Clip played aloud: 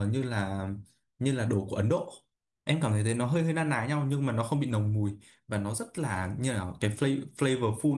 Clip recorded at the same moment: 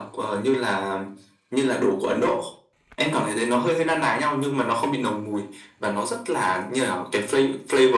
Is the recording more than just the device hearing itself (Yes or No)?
No